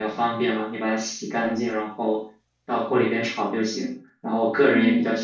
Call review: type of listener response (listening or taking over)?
listening